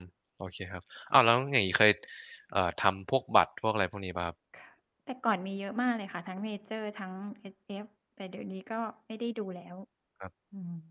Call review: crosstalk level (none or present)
none